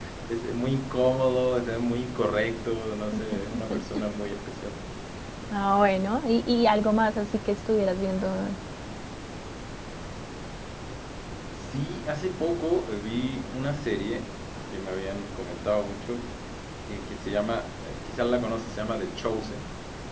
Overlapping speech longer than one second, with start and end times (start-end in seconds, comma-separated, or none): none